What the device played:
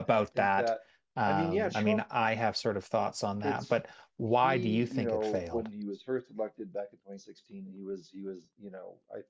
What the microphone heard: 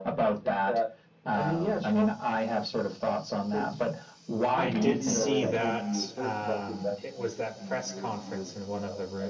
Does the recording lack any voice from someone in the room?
No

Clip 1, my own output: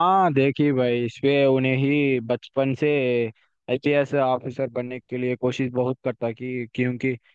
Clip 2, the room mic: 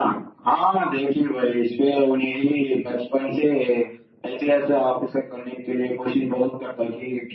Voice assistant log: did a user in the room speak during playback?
No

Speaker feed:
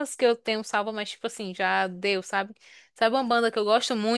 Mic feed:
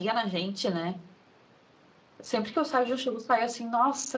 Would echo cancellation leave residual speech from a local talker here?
Yes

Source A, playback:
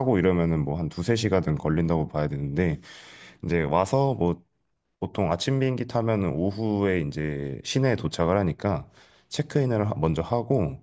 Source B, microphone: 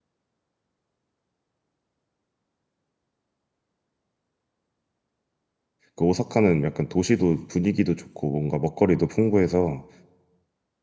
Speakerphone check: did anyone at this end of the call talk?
Yes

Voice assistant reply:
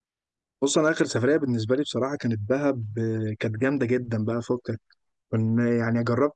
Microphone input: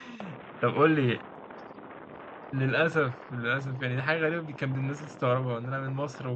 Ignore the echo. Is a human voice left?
Yes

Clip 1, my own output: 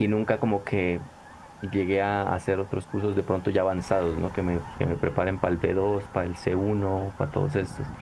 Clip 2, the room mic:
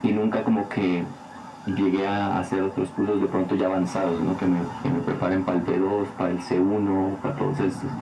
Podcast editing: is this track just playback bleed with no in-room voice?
Yes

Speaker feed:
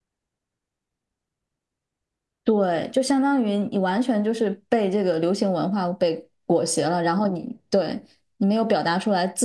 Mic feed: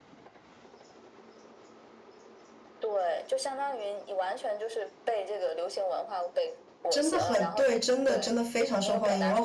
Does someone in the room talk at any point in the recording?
Yes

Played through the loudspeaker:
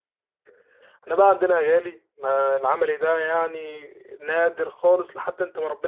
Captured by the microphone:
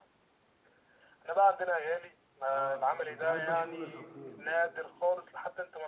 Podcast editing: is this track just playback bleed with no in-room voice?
No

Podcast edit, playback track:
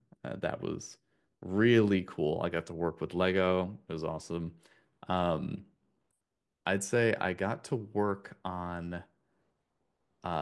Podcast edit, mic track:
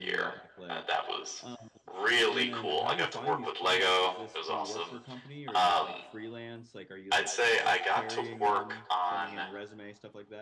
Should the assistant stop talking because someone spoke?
Yes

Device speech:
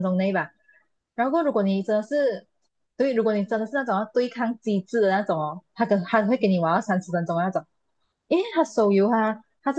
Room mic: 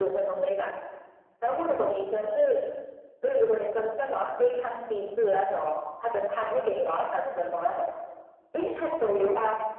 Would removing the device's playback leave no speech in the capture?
Yes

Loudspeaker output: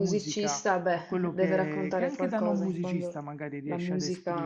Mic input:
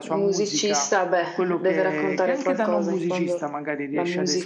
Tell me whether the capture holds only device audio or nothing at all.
Yes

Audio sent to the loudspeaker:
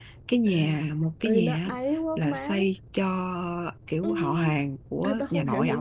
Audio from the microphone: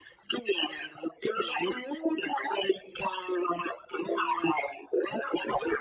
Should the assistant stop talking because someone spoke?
No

